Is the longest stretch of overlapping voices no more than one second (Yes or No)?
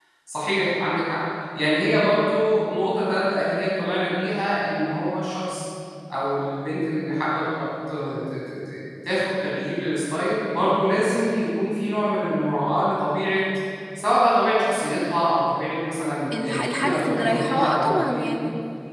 No